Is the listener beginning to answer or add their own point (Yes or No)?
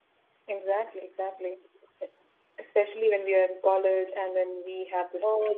No